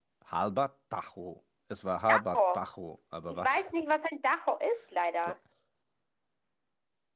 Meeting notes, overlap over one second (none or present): none